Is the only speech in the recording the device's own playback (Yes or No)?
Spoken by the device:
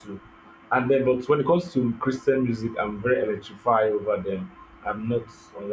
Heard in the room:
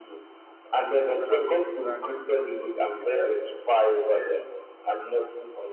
No